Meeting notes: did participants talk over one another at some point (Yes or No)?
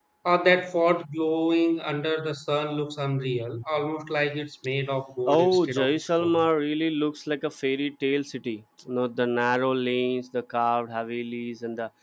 Yes